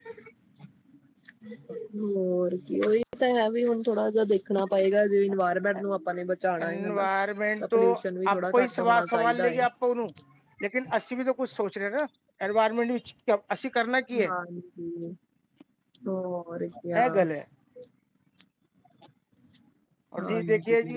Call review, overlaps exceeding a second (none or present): present